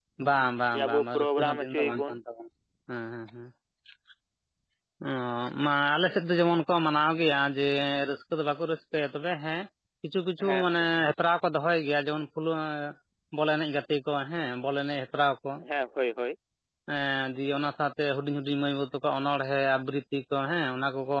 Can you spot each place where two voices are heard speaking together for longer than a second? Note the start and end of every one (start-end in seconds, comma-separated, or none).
0.7-2.1